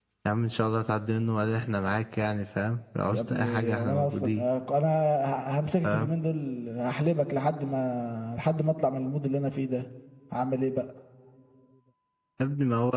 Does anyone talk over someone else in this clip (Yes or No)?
Yes